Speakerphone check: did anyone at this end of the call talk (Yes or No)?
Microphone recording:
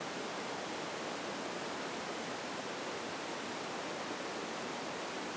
No